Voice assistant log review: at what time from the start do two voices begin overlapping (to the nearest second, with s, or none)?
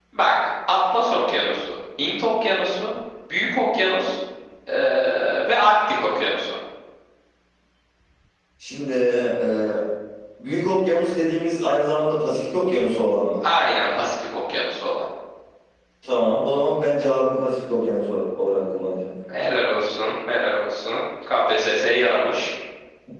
none